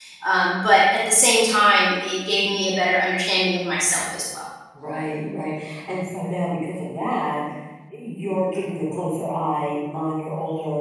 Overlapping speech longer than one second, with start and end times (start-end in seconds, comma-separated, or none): none